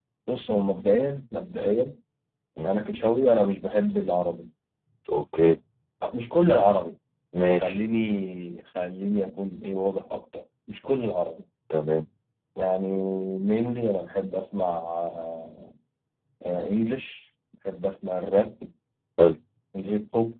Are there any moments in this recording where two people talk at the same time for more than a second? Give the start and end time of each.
none

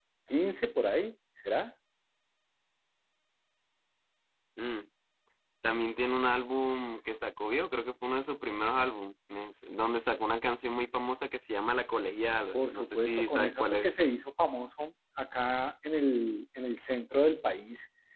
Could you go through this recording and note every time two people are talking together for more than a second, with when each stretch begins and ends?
12.5-13.9

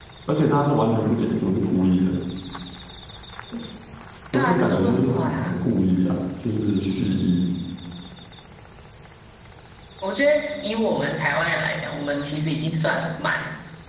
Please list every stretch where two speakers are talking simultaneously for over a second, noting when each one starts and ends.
4.3-5.6

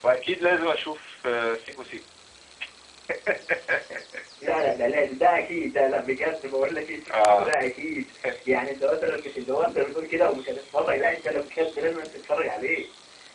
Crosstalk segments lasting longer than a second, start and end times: none

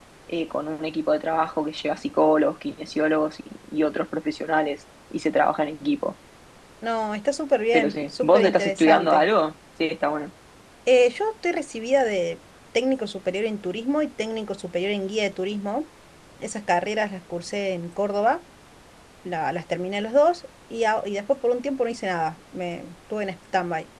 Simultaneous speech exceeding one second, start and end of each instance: 7.7-9.2

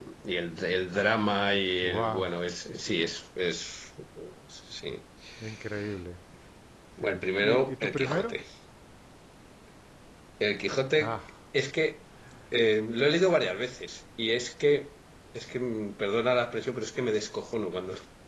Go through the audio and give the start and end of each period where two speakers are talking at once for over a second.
7.0-8.4

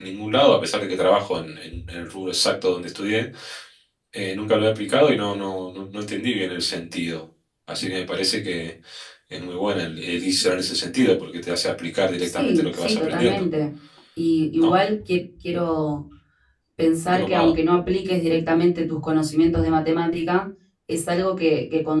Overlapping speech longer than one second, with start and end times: 12.2-13.4

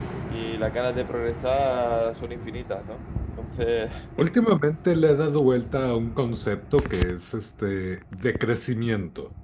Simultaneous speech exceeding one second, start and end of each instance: none

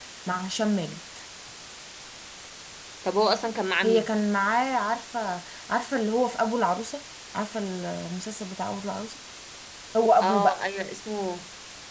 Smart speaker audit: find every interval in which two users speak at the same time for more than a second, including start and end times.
none

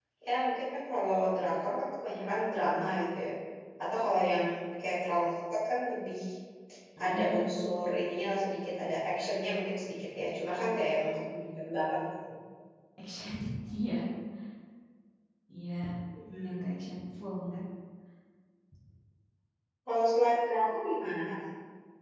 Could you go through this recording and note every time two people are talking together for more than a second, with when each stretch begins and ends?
none

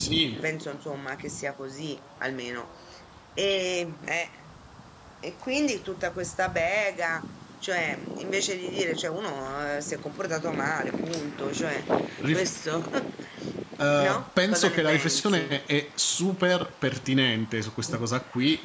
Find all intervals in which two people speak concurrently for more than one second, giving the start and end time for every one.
14.0-15.6

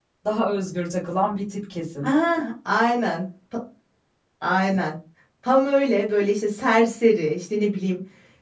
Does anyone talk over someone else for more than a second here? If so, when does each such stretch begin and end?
none

